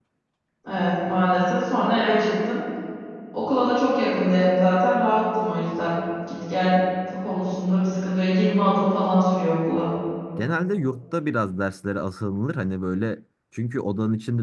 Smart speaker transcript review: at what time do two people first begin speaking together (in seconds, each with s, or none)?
none